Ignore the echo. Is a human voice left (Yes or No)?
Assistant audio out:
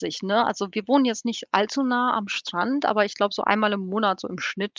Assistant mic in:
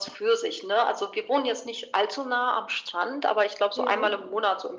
Yes